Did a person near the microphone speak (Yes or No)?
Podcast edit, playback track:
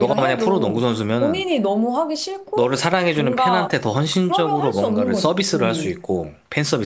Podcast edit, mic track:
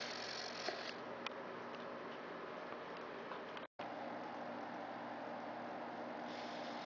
No